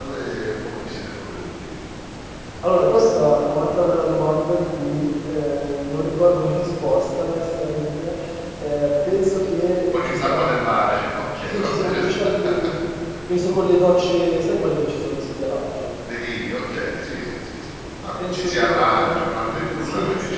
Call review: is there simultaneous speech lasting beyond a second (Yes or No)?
Yes